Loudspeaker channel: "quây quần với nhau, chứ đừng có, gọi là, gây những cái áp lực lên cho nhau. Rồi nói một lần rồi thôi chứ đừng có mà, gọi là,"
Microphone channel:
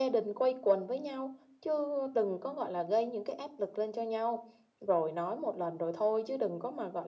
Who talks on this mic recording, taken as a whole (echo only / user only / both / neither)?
echo only